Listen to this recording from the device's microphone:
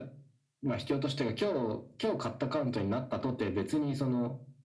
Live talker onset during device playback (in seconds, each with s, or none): none